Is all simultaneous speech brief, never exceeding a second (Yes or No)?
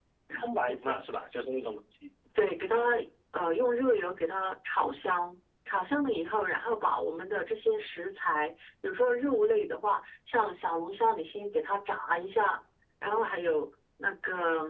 Yes